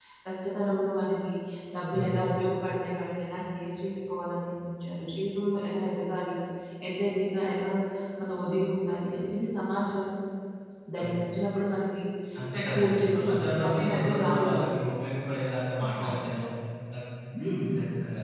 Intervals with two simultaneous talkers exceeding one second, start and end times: 12.7-14.9

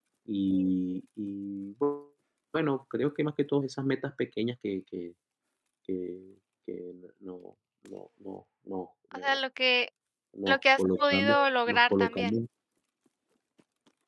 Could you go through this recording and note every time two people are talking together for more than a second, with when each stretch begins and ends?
10.5-12.3

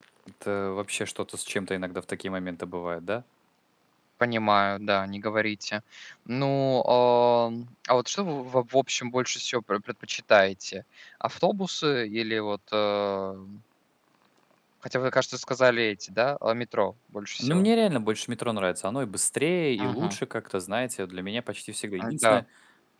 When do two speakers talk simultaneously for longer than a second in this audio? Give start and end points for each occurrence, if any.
none

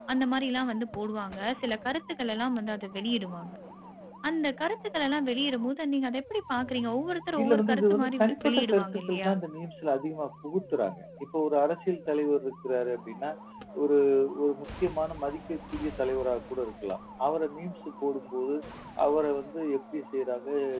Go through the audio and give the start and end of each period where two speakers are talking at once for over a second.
7.4-9.3

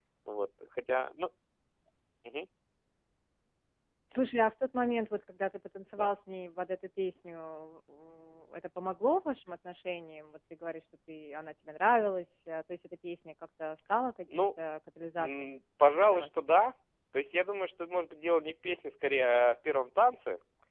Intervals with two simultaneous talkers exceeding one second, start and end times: none

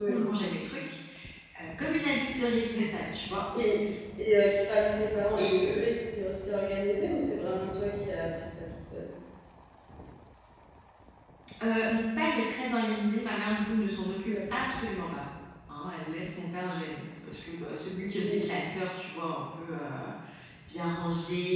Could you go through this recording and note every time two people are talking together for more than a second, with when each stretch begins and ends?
none

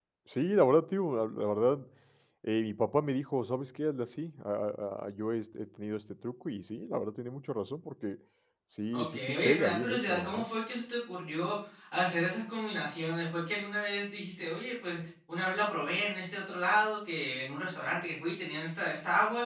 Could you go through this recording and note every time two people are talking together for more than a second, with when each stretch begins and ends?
8.9-10.4

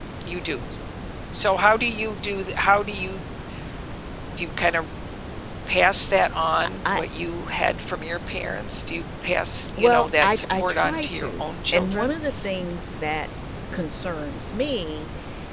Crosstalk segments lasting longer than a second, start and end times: 9.8-12.1

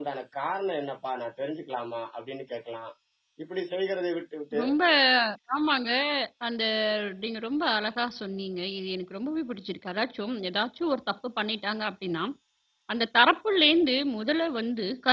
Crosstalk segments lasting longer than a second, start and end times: none

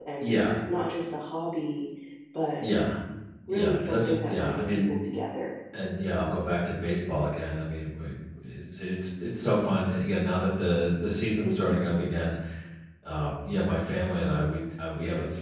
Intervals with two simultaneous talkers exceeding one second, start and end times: 3.5-4.9

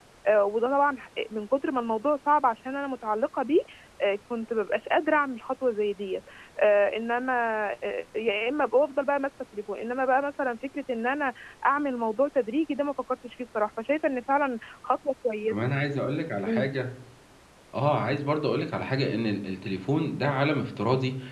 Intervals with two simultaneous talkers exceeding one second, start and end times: none

